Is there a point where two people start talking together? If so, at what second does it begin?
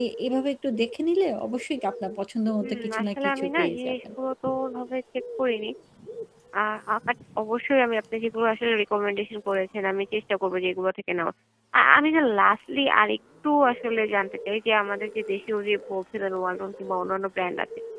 2.6 s

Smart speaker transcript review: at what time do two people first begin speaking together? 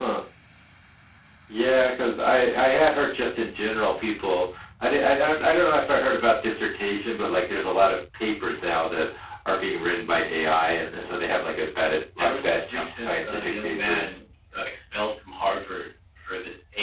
12.2 s

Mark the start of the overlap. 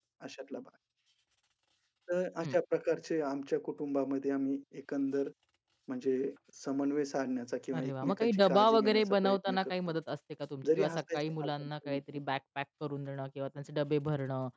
7.7 s

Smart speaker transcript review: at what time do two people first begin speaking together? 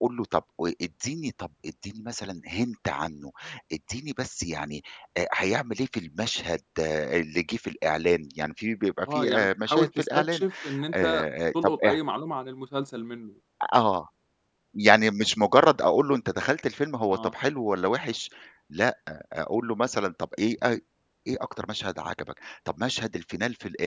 9.1 s

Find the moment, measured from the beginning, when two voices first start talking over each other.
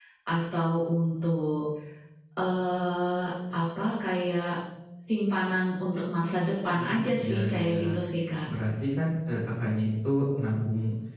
6.7 s

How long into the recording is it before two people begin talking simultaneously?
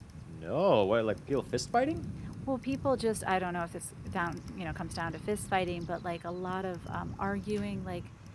none

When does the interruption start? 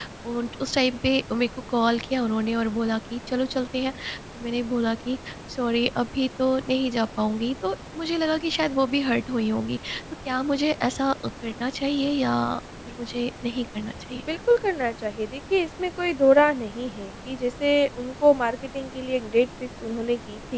none

